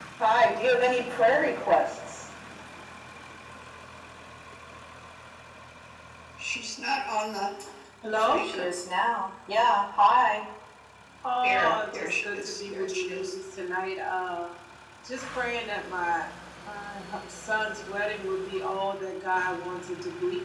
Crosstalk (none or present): present